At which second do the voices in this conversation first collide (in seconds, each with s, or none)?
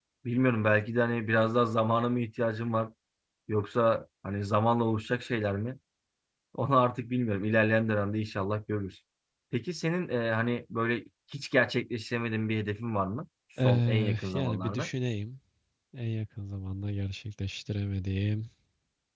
13.6 s